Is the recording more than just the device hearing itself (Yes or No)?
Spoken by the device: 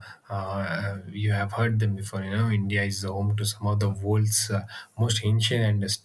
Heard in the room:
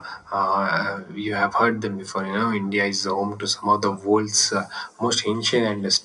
No